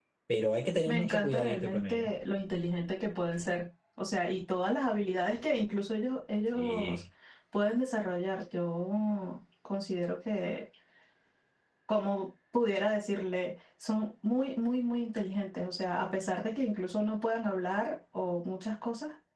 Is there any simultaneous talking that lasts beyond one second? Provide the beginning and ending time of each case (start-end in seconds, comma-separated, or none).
0.8-2.1